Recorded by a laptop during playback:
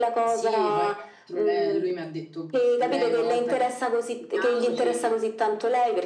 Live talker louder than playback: No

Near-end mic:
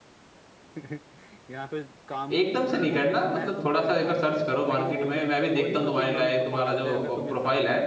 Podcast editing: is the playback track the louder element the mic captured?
No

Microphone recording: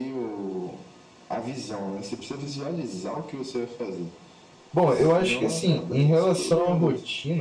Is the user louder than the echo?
Yes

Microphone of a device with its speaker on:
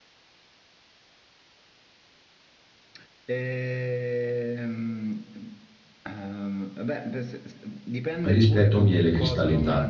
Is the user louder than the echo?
Yes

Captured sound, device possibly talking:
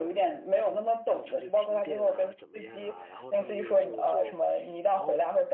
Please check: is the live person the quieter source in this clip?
Yes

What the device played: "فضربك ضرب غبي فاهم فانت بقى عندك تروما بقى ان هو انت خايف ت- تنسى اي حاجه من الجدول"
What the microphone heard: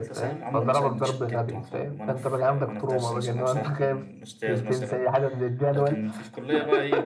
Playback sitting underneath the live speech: No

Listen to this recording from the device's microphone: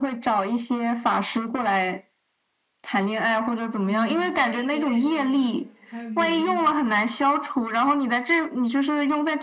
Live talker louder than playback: No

